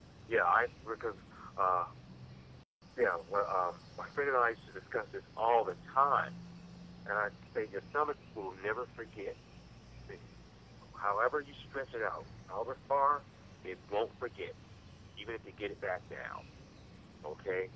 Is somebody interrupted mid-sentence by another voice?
No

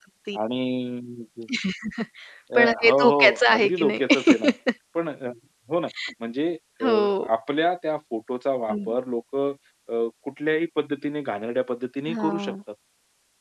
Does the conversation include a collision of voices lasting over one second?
Yes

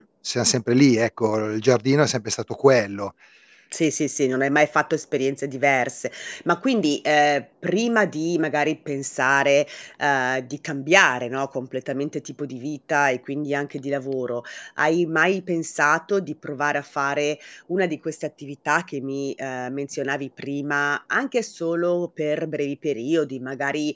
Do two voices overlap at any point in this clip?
No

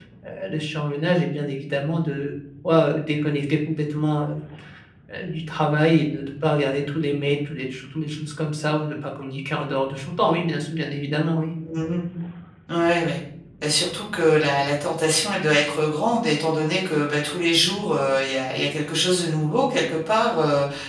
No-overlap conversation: Yes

